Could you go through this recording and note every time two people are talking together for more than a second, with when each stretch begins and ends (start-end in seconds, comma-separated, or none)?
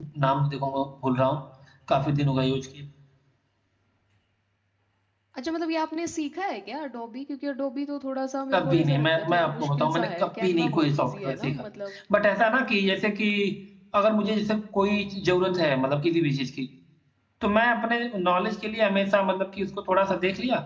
8.5-11.6